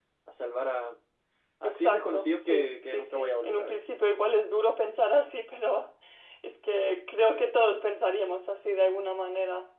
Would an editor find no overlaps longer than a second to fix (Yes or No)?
No